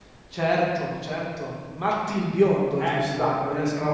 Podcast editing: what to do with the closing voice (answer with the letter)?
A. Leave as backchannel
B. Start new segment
B